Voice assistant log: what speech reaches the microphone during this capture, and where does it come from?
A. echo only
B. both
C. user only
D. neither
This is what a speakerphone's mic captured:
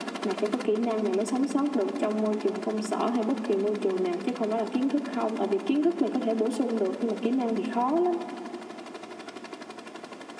A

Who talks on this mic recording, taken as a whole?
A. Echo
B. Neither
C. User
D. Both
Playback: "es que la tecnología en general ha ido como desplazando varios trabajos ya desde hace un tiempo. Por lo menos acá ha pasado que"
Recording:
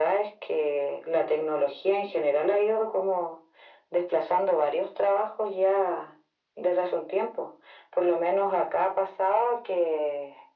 A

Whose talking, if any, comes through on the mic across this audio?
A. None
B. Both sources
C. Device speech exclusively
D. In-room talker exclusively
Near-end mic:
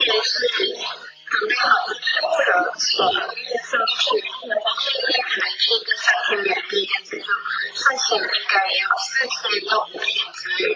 C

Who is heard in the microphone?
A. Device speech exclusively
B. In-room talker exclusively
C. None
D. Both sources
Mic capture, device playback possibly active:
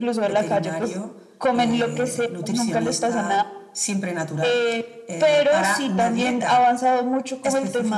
A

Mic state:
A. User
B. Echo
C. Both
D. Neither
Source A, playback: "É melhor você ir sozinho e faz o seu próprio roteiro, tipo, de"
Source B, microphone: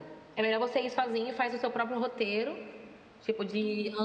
B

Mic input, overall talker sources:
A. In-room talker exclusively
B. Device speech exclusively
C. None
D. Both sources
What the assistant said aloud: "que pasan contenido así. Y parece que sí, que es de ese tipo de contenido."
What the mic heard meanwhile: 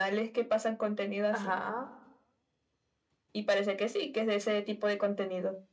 D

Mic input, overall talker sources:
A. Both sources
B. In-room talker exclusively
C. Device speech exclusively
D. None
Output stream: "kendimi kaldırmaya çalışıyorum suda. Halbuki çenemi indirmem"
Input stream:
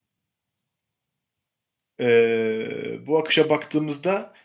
B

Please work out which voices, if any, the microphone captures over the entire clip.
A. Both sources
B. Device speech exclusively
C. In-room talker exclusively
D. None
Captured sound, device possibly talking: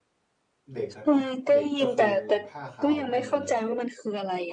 A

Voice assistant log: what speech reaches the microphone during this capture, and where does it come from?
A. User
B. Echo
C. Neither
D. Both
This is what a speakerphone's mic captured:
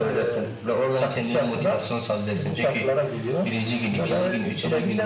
B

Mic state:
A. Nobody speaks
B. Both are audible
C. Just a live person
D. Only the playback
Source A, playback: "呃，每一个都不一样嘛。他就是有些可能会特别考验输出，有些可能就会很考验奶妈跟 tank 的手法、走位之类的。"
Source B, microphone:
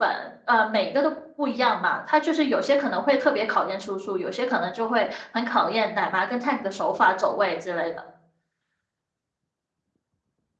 D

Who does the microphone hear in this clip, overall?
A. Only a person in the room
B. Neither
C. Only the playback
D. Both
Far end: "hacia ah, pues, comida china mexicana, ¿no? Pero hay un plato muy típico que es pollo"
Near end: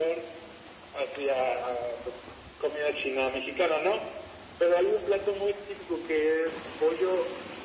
C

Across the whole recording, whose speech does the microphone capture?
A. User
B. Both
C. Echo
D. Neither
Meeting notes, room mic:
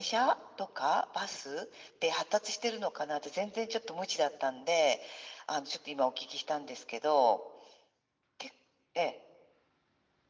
C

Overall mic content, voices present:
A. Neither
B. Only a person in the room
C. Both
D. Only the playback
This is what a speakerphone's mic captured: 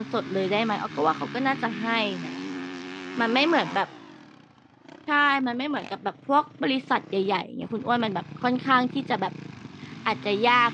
B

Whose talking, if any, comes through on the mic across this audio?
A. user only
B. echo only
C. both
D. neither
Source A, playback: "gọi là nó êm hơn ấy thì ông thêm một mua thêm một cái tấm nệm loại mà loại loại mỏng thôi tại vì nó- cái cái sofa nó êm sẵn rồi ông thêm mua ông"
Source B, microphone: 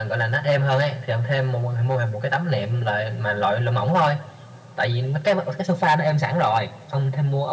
B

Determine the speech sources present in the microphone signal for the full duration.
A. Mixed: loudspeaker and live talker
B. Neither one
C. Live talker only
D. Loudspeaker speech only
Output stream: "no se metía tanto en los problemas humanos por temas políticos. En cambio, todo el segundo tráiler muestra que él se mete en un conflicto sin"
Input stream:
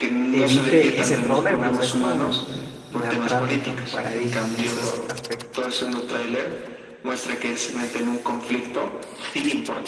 A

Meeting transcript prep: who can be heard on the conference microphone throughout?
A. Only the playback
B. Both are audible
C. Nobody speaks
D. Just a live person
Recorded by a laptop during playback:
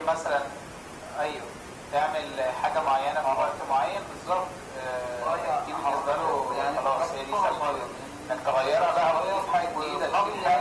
A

